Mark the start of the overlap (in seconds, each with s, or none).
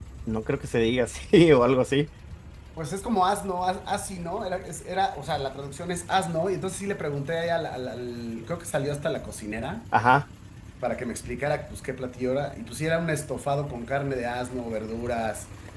none